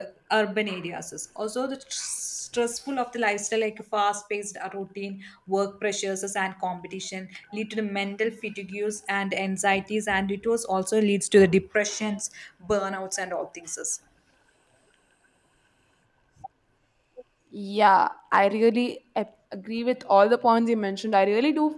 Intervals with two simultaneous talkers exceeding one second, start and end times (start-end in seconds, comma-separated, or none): none